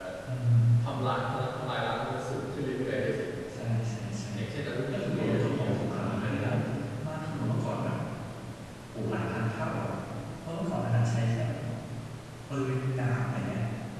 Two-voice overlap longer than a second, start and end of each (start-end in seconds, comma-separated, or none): 4.9-6.5